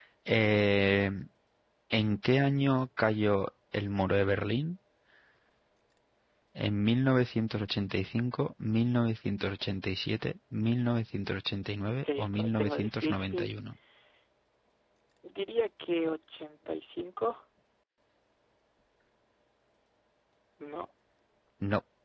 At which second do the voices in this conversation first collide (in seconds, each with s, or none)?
12.0 s